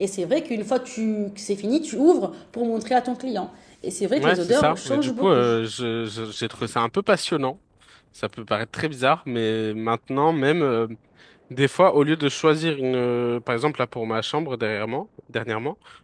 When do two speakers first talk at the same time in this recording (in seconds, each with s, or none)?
4.2 s